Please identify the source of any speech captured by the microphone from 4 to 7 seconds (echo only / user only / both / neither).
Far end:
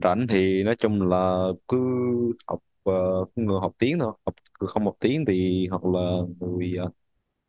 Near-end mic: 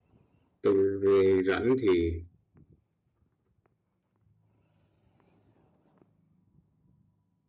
neither